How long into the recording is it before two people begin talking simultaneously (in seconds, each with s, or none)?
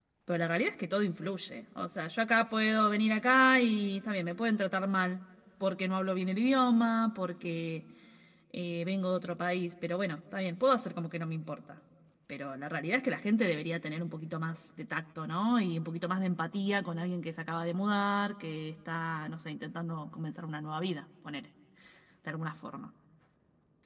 none